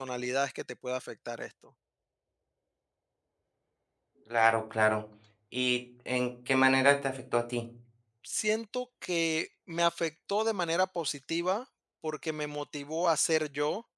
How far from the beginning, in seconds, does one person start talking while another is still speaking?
none

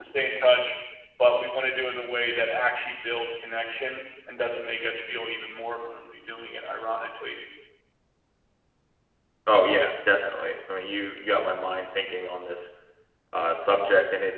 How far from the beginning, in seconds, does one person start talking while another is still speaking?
none

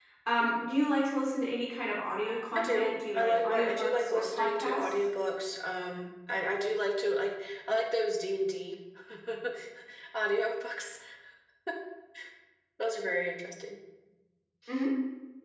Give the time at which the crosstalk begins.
2.5 s

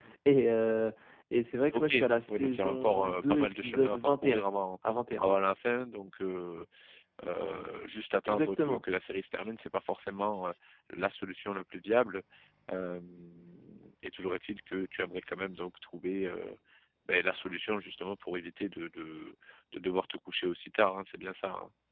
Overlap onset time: 1.7 s

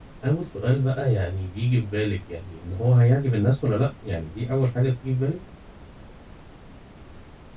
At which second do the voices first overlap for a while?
none

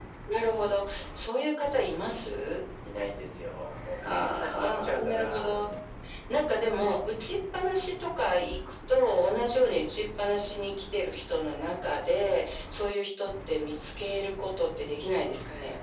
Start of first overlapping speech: 4.0 s

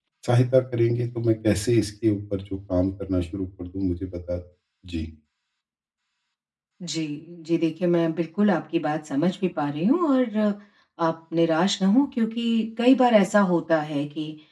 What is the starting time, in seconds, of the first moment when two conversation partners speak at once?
none

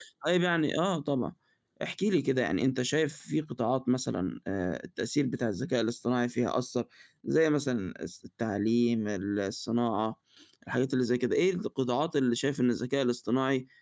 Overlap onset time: none

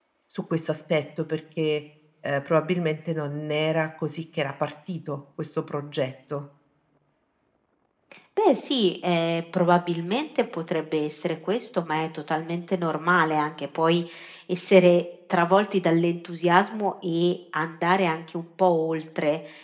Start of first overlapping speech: none

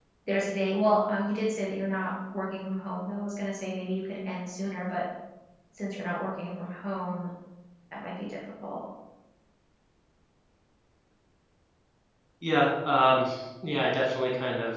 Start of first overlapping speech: none

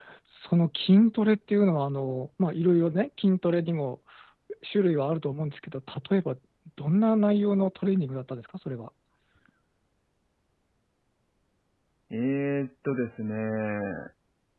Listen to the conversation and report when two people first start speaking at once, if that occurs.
none

